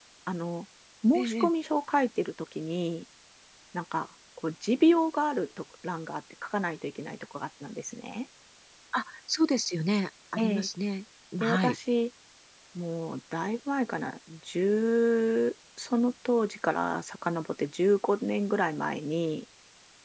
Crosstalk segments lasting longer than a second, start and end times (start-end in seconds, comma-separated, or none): none